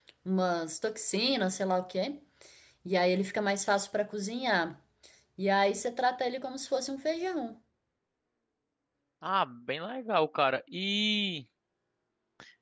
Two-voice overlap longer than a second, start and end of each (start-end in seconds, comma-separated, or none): none